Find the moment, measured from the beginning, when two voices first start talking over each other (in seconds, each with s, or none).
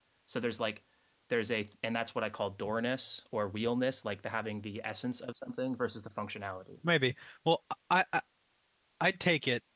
none